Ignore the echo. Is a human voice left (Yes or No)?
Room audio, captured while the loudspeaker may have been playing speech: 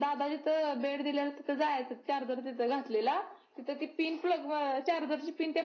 No